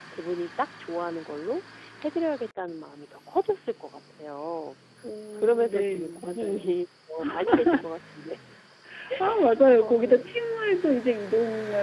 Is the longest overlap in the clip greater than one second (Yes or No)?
Yes